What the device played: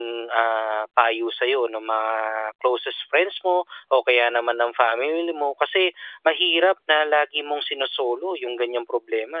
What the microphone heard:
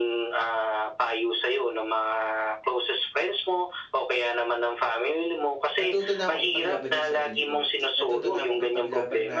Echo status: present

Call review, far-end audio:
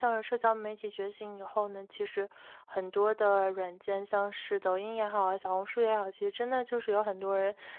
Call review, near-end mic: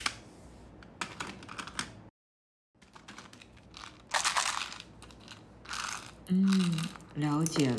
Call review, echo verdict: none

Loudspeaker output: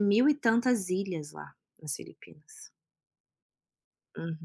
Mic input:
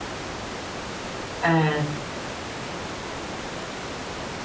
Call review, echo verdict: none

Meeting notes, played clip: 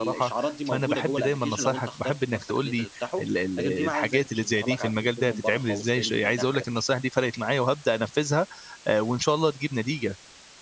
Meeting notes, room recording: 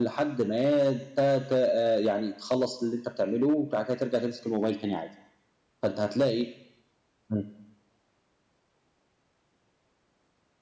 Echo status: none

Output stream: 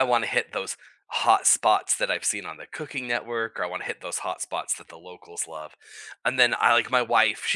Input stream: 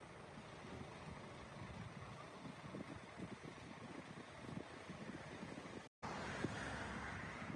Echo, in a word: none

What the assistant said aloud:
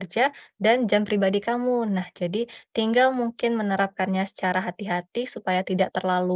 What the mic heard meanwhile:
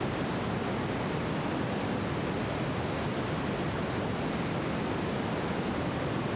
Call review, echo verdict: none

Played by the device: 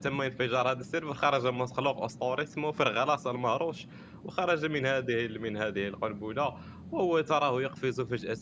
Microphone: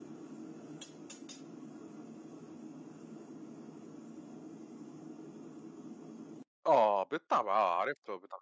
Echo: none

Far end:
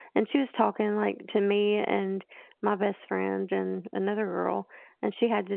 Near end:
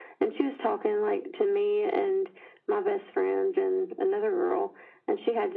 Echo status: present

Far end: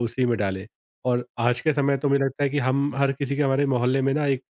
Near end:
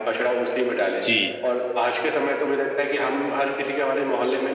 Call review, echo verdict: present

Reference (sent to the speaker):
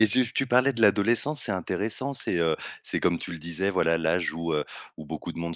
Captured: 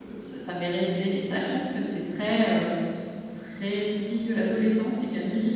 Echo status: none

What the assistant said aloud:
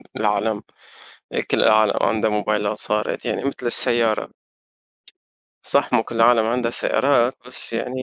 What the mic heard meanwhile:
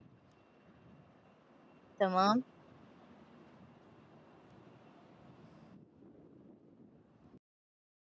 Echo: none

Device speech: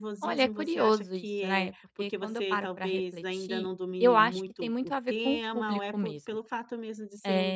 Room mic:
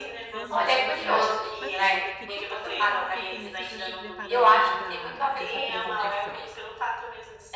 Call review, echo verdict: present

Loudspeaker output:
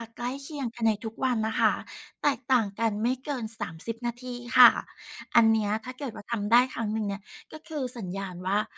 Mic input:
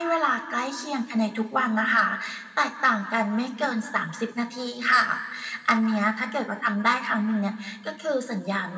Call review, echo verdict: present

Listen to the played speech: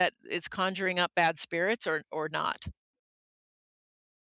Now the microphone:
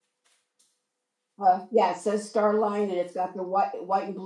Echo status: none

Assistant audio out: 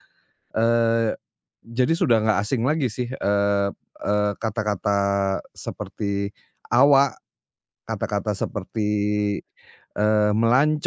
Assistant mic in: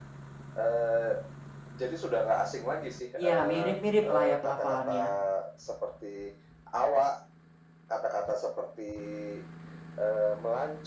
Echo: present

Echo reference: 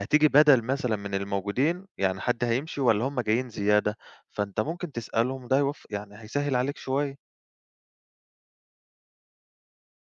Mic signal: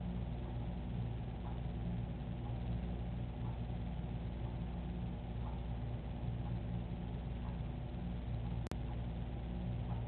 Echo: none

